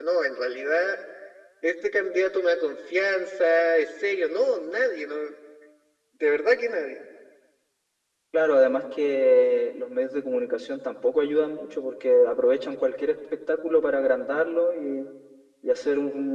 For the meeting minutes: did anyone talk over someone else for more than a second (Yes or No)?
No